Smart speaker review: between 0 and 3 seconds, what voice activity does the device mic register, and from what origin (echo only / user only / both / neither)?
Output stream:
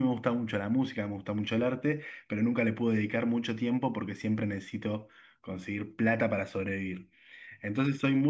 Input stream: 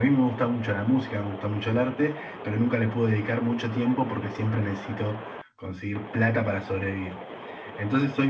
echo only